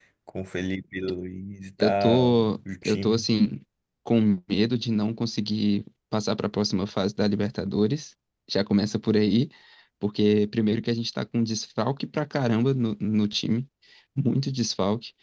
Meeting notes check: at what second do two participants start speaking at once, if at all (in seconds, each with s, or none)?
1.8 s